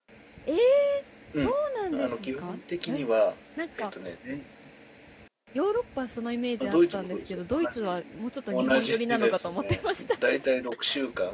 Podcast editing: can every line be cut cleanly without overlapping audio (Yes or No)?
No